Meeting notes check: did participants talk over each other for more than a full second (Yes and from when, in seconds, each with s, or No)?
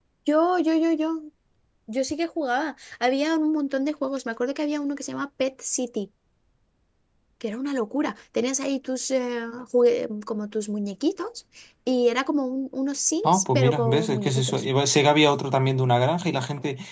Yes, from 13.2 s